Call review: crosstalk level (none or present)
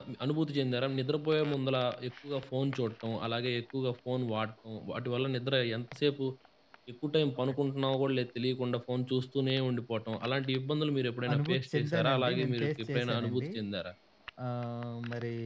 present